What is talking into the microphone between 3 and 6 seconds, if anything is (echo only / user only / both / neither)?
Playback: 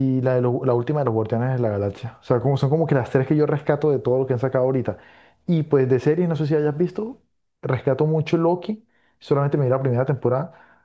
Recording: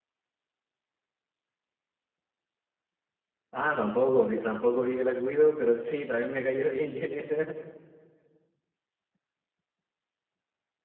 user only